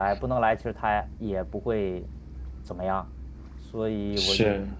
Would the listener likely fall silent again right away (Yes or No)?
Yes